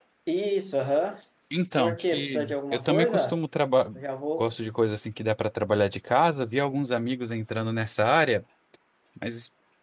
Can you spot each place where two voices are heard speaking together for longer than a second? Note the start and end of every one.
1.8-3.4

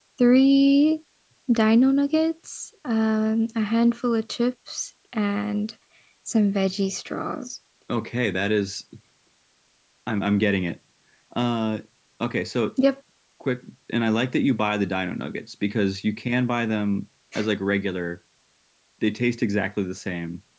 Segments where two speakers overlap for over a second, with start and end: none

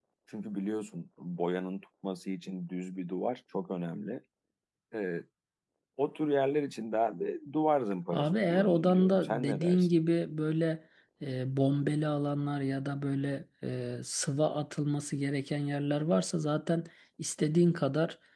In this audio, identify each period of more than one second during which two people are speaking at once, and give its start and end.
8.1-9.9

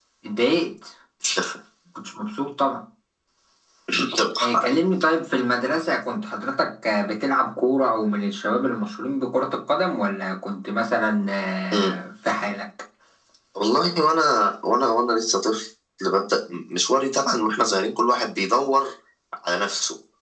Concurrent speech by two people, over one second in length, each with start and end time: none

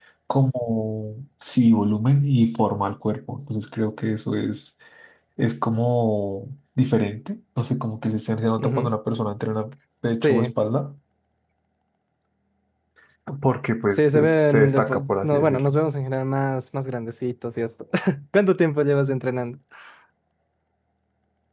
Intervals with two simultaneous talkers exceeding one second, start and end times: 13.9-15.8

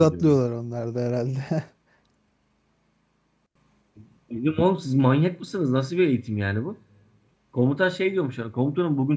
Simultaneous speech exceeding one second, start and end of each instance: none

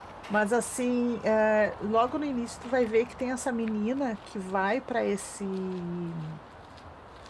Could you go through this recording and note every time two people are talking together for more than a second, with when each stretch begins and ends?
none

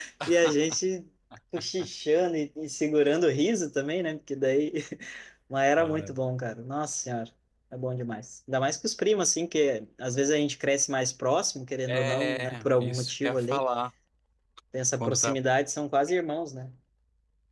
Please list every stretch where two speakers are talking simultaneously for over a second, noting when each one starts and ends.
11.9-13.6

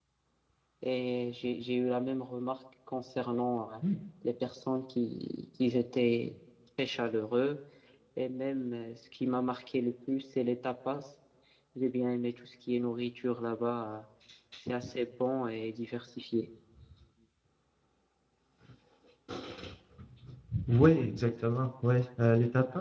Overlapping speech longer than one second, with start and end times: none

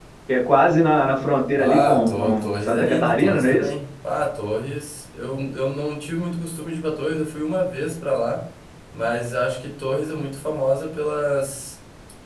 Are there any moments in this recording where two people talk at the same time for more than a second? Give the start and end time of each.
1.6-3.7

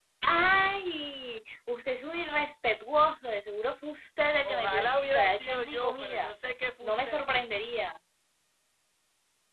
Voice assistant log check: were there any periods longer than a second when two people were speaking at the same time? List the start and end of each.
4.4-6.3

